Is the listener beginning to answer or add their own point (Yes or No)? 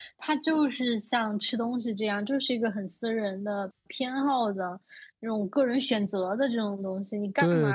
No